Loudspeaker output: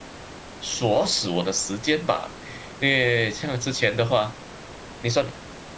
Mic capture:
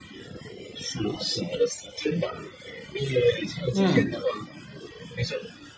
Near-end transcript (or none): 嗯